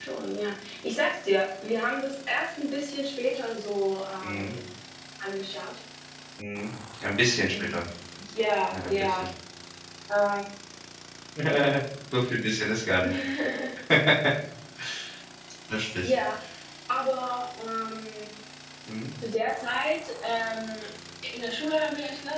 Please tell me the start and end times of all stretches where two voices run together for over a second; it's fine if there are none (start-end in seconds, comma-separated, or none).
none